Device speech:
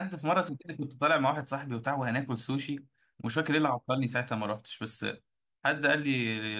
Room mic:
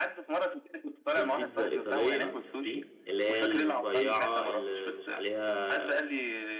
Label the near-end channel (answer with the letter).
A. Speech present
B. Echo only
A